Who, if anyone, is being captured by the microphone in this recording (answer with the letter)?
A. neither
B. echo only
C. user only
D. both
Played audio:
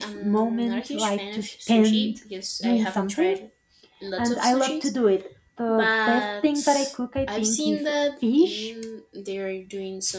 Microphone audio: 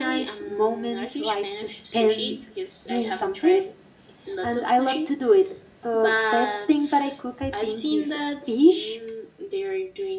B